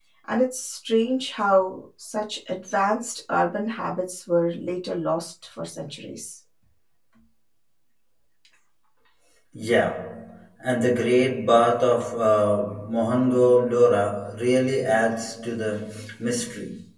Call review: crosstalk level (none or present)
none